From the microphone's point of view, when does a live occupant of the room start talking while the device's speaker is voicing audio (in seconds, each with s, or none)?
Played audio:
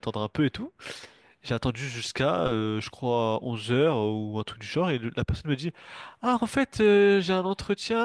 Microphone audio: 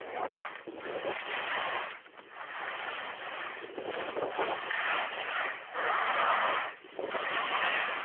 none